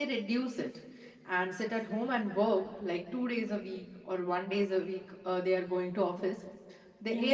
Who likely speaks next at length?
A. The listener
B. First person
B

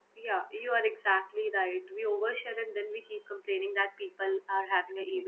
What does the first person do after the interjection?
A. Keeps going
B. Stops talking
A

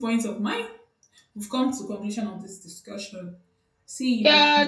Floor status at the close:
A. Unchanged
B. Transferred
B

